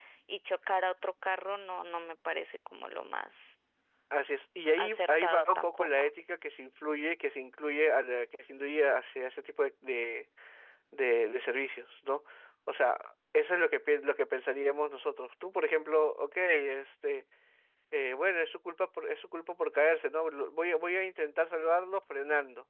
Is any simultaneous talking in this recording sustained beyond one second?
Yes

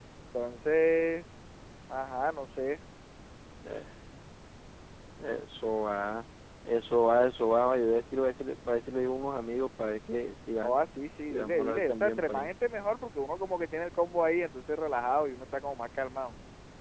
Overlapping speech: Yes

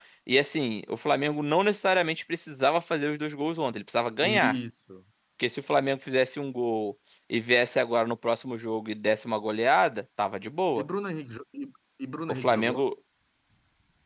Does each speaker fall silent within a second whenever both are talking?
Yes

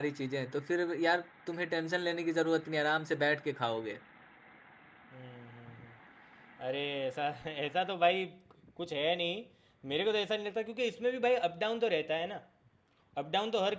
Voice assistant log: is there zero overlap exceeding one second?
Yes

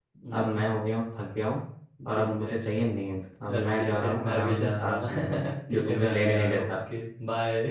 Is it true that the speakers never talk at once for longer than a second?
No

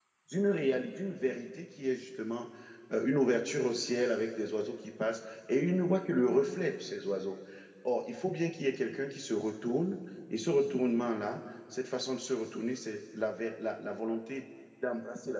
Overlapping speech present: No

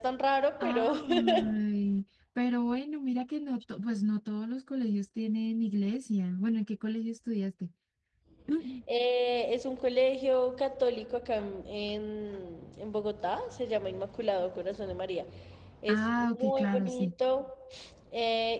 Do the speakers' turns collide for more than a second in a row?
Yes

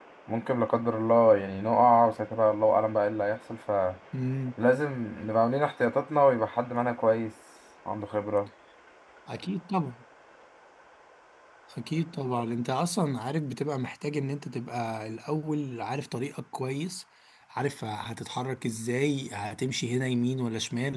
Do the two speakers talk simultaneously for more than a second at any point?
No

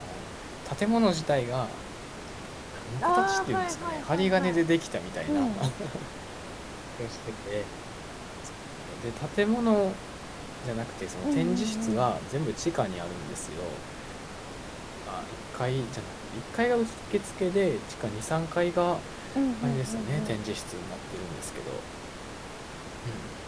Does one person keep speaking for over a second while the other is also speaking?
Yes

